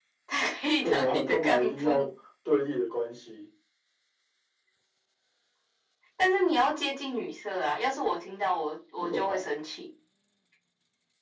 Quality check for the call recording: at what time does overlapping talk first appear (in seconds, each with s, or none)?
0.8 s